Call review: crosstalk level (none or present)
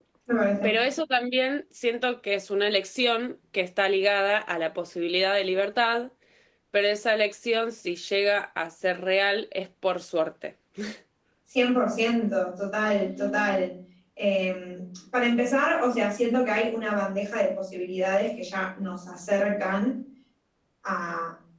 none